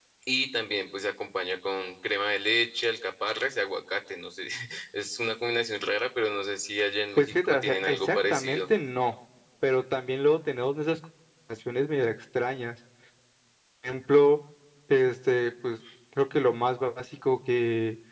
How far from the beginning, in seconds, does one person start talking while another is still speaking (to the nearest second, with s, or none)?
7 s